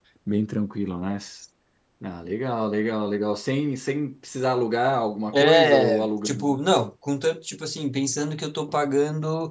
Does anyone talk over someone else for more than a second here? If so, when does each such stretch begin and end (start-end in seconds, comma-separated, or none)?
5.3-6.6